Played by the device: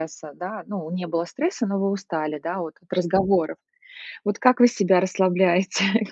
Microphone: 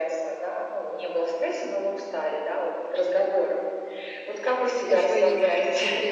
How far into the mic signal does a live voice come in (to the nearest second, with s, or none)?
5 s